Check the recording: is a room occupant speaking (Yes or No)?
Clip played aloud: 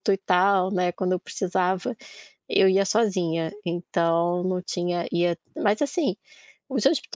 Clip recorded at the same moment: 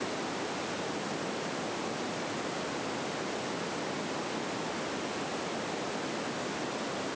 No